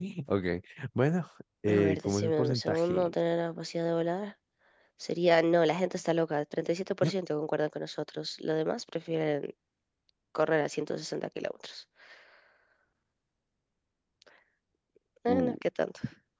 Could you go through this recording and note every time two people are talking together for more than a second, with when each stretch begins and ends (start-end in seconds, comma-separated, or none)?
1.7-3.1